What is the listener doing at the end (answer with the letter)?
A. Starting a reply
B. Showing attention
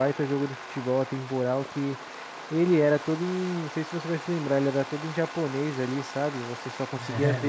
B